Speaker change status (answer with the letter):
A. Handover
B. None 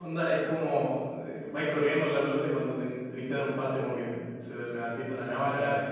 A